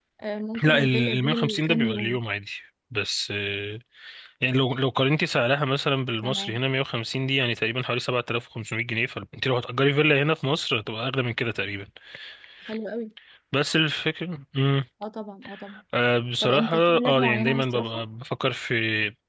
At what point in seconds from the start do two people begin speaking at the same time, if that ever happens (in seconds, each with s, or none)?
0.7 s